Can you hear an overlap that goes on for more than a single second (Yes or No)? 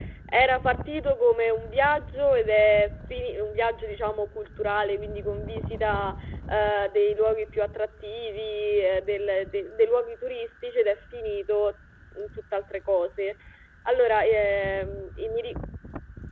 No